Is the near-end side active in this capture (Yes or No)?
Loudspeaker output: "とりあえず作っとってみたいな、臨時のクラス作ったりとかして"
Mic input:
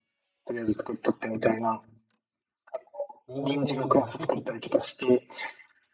Yes